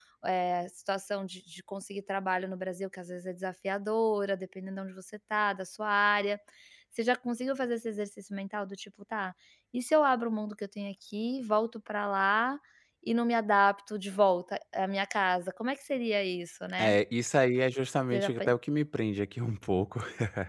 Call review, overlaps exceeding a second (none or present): none